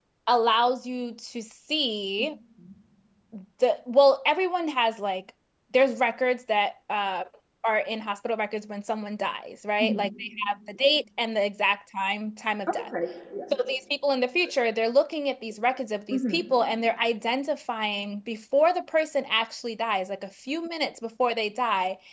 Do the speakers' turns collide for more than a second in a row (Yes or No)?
No